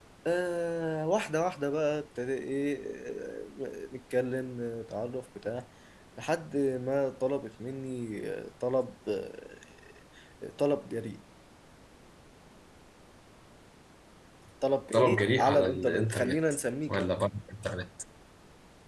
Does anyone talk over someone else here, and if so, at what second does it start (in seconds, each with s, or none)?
14.9 s